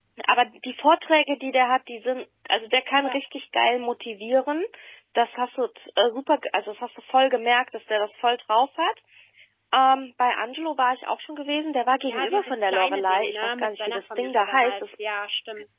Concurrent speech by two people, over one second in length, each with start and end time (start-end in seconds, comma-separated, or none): 12.1-15.0